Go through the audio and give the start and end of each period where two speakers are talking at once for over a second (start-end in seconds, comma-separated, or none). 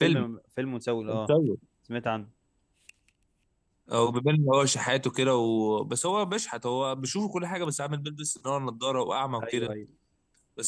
none